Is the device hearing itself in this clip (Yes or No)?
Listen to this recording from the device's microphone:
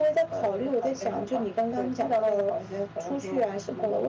Yes